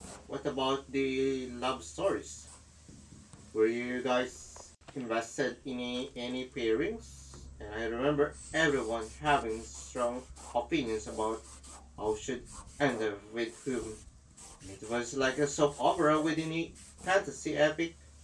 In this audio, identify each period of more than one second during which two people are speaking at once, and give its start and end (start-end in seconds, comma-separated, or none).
none